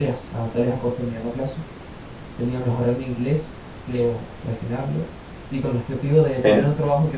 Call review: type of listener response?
listening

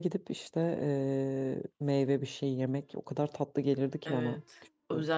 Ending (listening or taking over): taking over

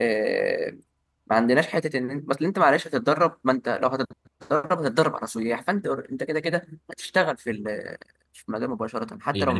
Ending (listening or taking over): taking over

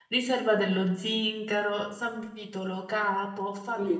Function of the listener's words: taking over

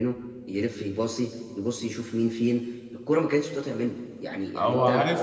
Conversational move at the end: listening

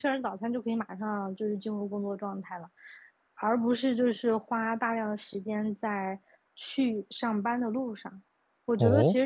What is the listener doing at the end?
listening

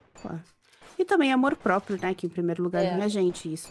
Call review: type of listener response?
listening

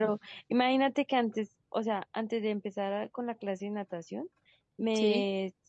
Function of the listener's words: listening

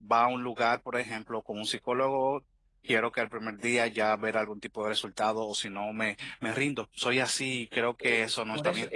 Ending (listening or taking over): taking over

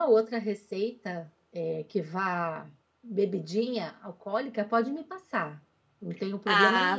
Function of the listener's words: taking over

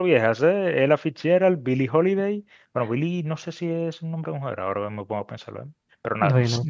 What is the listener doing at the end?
listening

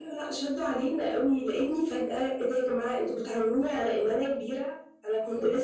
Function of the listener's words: listening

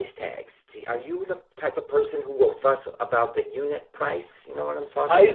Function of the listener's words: taking over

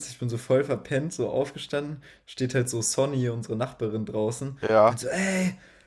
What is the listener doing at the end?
listening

